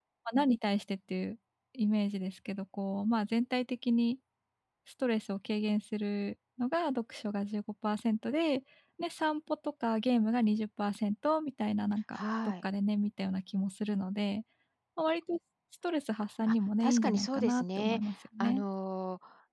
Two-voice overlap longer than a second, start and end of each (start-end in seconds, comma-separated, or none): 16.5-18.0